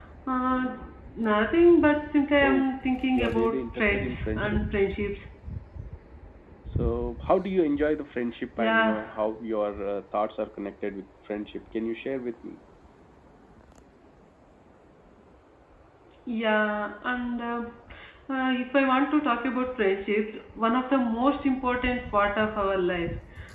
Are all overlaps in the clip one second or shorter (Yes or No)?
No